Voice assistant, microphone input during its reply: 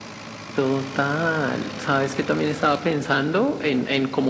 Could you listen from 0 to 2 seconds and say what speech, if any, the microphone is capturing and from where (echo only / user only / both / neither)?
echo only